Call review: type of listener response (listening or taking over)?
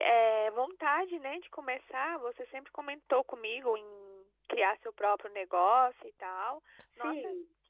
taking over